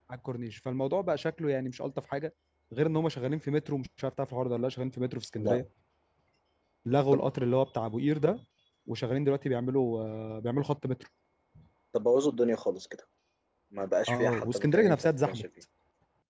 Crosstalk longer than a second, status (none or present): present